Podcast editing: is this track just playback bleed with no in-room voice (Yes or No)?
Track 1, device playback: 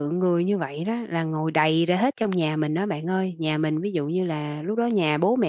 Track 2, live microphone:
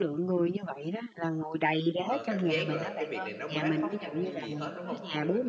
No